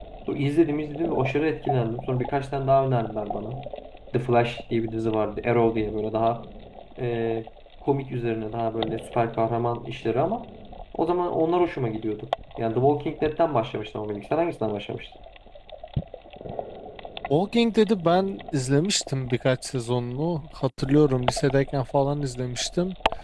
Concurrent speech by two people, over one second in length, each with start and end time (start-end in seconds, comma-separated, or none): none